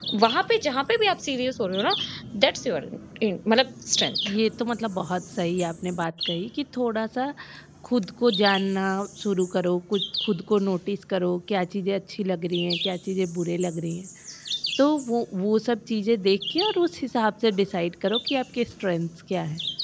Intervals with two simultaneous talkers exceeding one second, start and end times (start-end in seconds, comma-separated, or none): none